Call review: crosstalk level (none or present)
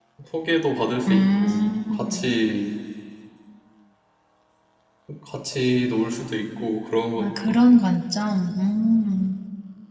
present